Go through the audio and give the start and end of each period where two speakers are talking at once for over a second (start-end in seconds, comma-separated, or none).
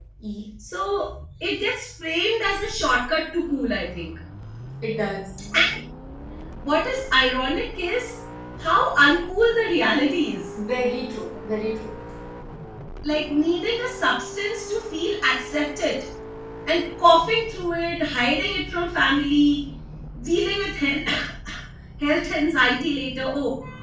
none